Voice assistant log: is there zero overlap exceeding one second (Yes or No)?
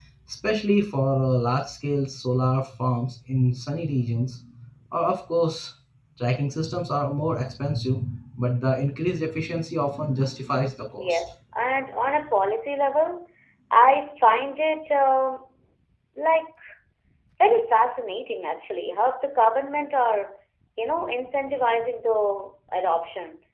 Yes